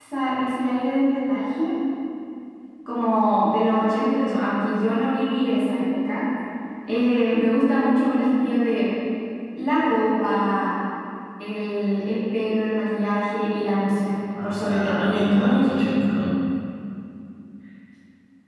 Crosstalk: present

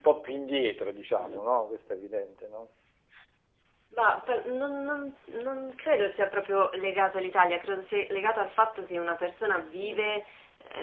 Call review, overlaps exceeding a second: none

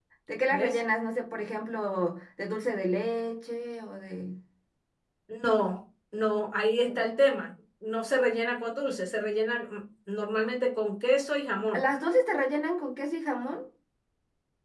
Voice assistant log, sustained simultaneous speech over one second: none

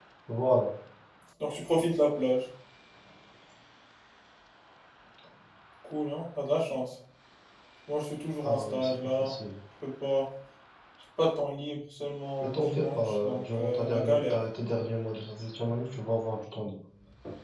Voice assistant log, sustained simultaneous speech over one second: present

